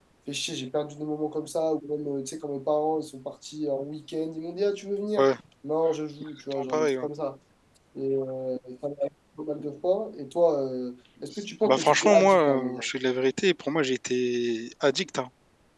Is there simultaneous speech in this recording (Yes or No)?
Yes